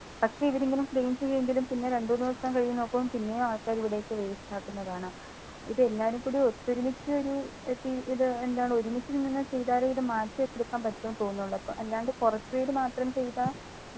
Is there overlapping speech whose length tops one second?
No

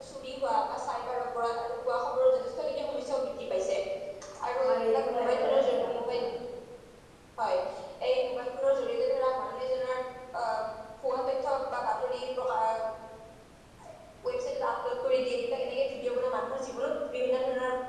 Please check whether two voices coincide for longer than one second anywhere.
Yes, from 4.6 s

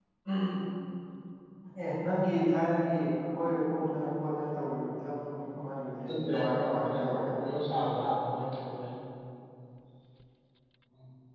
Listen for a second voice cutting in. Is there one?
Yes, from 5.9 s

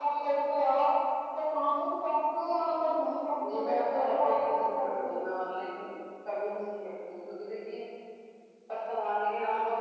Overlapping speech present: Yes, from 3.4 s

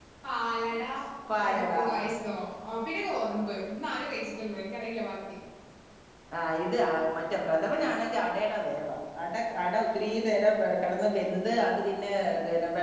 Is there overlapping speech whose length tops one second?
No

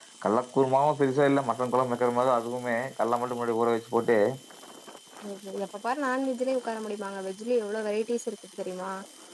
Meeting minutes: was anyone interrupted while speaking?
No

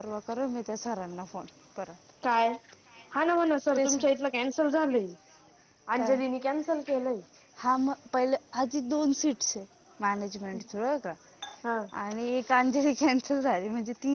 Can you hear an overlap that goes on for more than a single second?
No

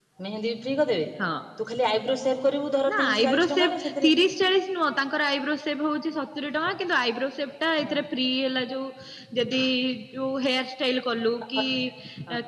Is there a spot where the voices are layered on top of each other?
Yes, from 2.8 s

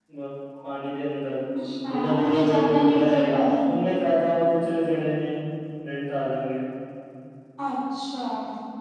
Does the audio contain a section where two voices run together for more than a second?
Yes, from 1.9 s

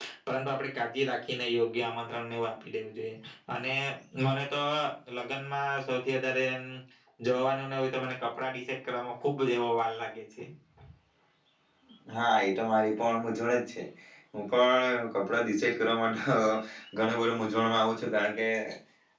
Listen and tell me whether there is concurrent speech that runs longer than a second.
No

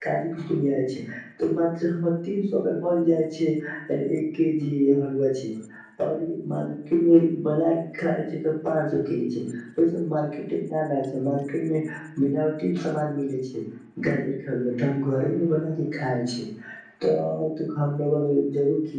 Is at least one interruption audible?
No

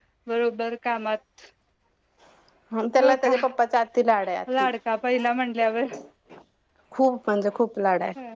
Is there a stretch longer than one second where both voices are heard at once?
No

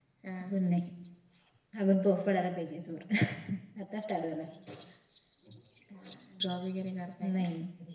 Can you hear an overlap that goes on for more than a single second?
No

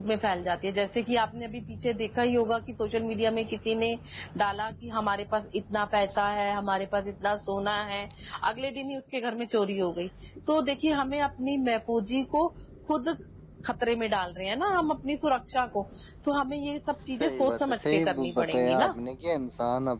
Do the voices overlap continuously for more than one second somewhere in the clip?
Yes, from 17.1 s

